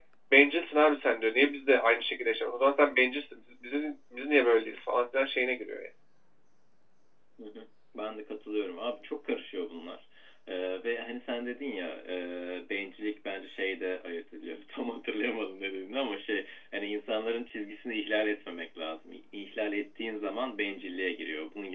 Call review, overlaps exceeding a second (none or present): none